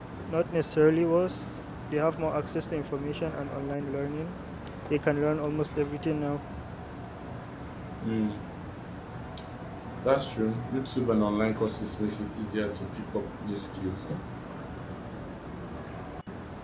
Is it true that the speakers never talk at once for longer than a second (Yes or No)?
Yes